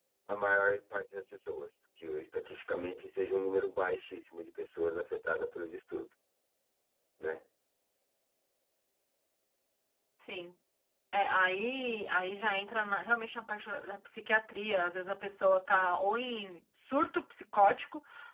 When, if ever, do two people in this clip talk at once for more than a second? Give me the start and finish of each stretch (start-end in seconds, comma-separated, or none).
none